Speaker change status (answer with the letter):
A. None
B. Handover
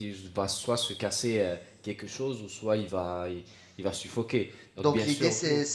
B